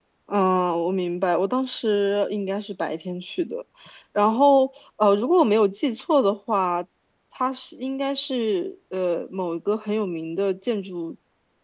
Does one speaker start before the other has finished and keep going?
No

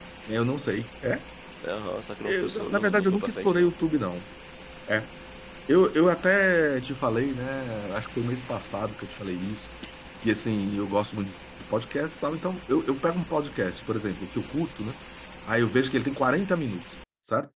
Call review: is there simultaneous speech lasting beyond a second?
Yes, from 2.2 s

